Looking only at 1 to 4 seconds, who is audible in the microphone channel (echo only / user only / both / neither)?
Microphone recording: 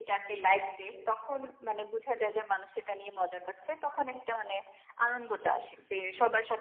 echo only